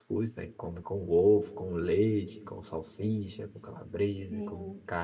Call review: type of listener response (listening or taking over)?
taking over